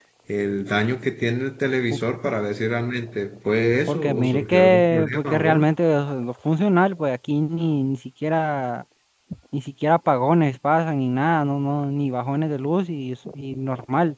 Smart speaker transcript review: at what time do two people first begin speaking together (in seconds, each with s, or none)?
3.9 s